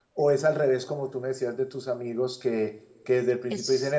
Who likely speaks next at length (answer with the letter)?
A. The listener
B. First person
B